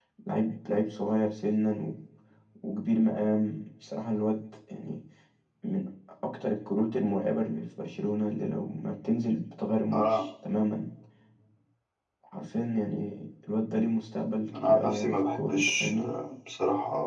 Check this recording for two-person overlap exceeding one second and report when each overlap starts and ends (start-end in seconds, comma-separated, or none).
14.5-16.1